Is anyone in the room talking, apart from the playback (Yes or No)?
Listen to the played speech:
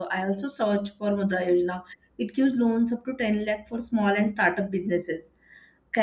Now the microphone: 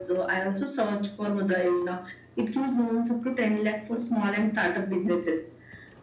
No